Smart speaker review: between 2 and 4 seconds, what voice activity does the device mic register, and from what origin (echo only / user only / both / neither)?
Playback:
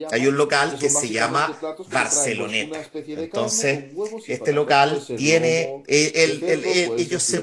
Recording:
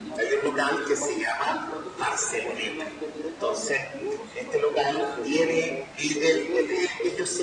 echo only